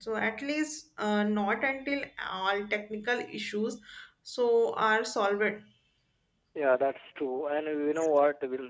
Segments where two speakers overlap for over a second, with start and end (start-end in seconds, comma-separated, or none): none